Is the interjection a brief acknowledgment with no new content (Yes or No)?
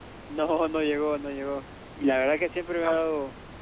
Yes